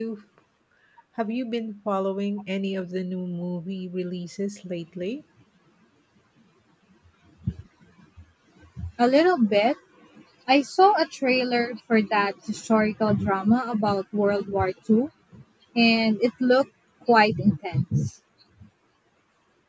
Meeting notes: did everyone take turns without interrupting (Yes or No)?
Yes